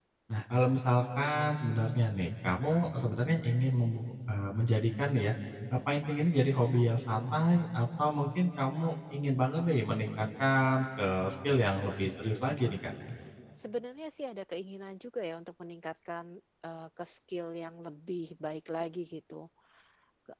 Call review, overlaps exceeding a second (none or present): none